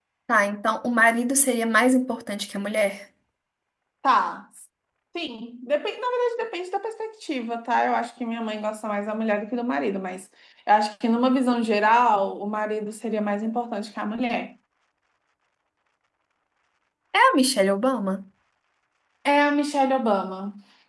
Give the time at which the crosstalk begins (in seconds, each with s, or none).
none